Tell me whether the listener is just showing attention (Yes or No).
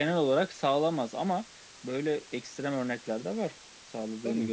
No